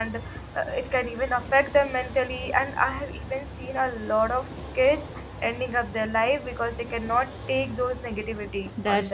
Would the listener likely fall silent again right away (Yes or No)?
No